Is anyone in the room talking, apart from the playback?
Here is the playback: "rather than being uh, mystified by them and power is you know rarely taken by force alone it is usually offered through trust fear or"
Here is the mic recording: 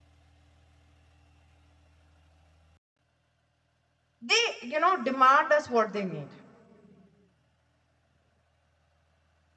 Yes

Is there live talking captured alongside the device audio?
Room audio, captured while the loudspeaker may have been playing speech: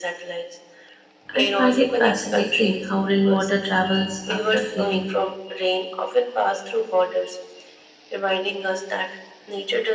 Yes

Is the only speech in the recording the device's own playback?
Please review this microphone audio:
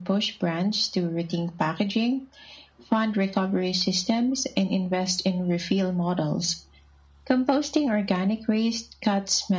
Yes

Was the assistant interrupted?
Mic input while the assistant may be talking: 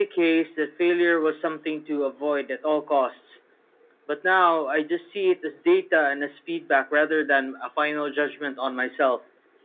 No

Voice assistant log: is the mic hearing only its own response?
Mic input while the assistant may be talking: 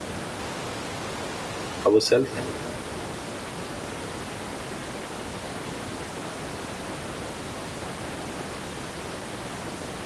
No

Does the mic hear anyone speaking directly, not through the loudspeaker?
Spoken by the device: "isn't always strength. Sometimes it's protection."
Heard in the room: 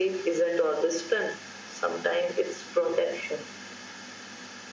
No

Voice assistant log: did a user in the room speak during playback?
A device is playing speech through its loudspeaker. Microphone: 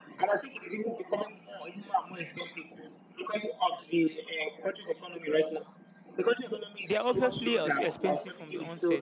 Yes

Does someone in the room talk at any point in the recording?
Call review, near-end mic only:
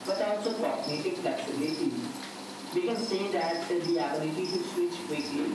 No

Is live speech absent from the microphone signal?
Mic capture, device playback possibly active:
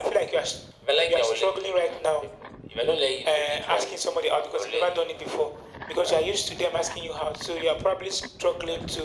Yes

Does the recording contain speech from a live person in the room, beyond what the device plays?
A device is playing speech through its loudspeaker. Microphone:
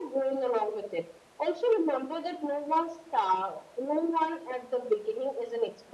No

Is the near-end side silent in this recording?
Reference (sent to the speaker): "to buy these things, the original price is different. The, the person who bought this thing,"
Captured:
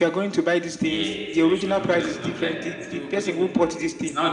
No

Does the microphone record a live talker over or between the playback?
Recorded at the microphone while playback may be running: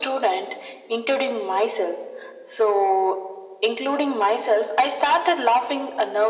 No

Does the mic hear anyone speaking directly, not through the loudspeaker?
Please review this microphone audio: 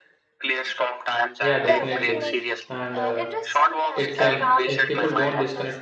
Yes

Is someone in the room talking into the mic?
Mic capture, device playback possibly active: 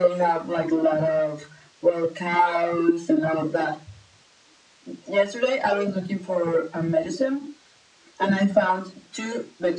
No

